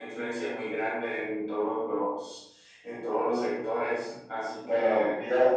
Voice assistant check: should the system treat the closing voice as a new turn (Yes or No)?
Yes